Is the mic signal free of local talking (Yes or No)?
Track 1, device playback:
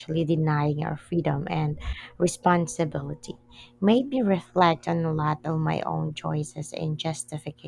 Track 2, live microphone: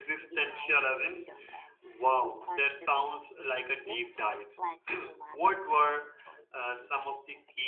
No